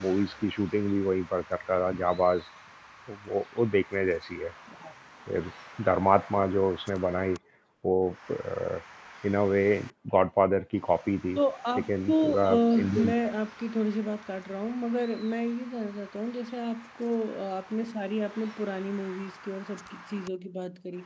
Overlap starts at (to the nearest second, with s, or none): 12 s